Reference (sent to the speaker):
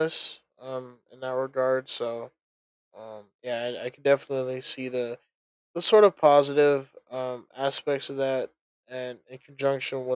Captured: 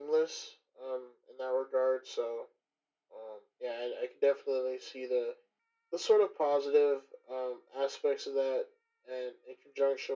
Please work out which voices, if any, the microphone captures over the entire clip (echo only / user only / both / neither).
echo only